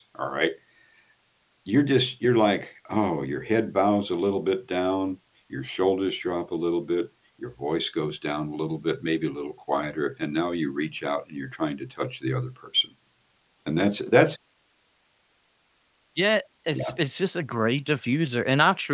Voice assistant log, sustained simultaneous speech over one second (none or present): none